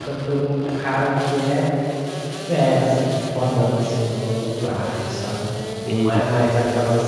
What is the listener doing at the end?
listening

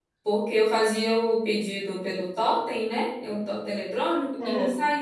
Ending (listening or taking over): listening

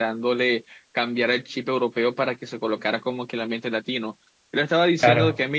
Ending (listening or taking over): listening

